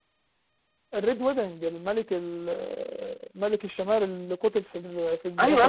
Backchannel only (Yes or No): No